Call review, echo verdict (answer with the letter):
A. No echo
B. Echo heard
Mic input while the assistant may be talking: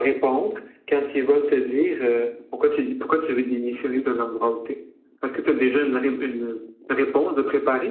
B